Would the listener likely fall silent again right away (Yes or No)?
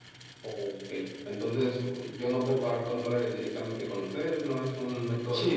No